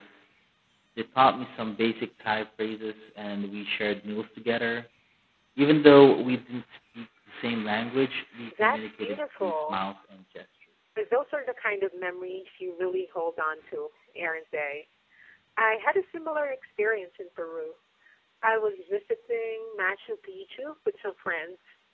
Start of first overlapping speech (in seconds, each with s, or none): 8.5 s